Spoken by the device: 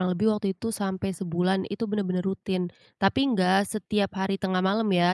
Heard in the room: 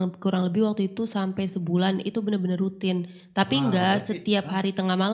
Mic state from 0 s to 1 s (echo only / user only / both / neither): echo only